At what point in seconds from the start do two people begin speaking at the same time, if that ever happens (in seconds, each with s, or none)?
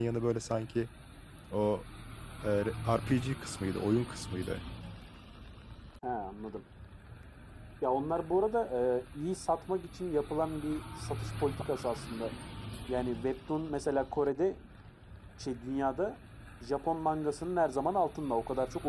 none